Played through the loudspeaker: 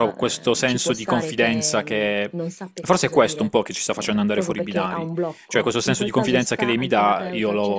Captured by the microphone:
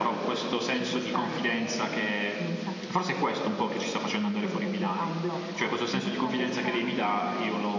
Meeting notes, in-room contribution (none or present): none